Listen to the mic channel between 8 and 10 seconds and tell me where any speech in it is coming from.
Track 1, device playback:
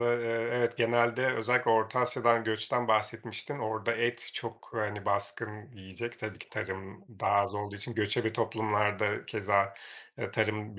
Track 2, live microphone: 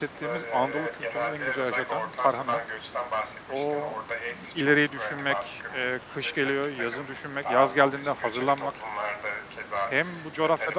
both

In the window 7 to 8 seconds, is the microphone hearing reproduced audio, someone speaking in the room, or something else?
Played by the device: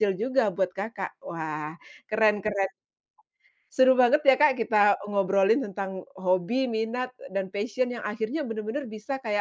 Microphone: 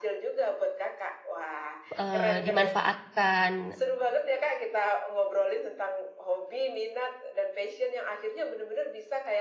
echo only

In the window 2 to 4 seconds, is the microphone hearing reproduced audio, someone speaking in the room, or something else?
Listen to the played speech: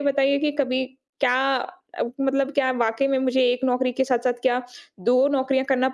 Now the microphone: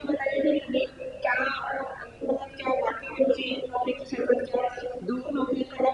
echo only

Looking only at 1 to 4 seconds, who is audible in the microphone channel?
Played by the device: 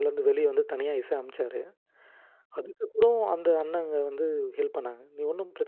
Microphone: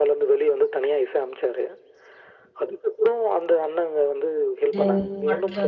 echo only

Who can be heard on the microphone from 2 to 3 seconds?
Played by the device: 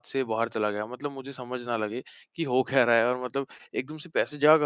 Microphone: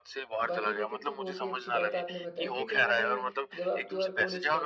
both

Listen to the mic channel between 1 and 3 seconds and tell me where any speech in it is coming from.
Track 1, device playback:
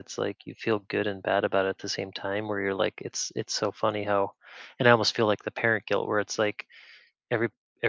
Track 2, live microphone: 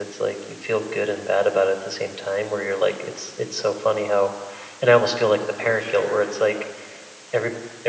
echo only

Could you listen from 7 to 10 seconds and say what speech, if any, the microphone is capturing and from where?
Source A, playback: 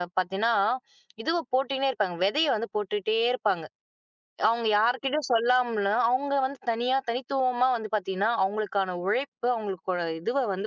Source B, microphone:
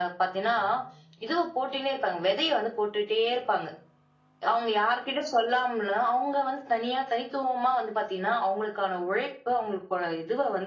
echo only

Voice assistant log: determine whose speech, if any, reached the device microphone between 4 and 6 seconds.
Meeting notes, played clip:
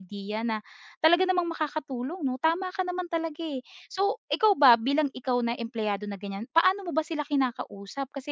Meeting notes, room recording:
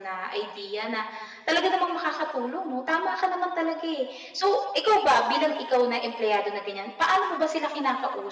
echo only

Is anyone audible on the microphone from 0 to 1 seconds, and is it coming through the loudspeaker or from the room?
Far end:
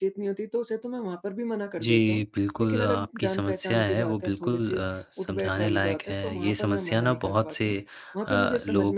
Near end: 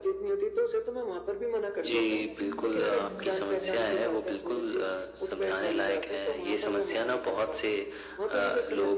echo only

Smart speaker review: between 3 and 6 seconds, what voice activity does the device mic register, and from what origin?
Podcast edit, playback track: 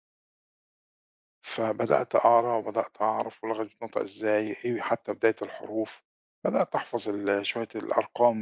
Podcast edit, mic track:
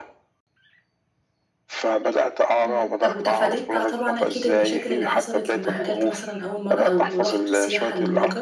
both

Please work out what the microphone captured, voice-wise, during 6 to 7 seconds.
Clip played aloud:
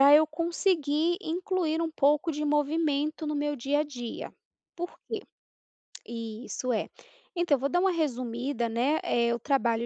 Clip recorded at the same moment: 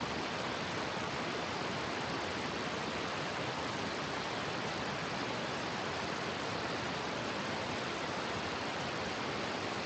neither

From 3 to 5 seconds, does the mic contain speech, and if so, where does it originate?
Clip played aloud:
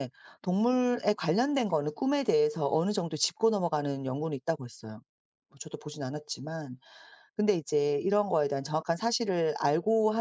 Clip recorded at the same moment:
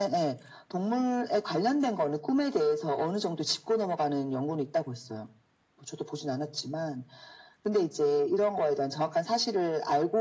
echo only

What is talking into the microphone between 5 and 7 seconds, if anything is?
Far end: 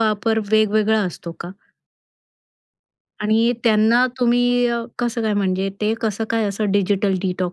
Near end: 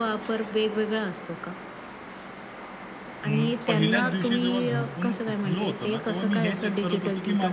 both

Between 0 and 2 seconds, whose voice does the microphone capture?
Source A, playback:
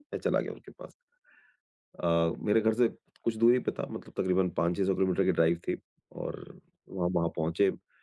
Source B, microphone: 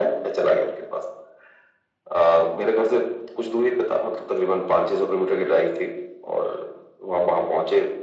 echo only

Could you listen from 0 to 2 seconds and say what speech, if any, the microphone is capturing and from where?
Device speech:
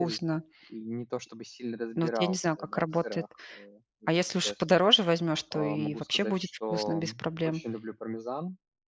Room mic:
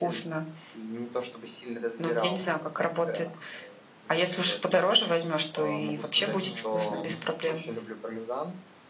echo only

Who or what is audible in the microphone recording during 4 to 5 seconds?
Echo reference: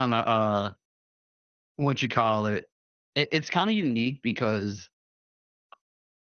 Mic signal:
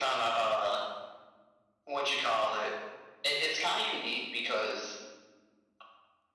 echo only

